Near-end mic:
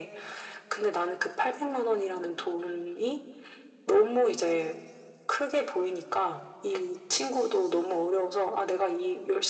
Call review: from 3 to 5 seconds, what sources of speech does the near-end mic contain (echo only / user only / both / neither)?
echo only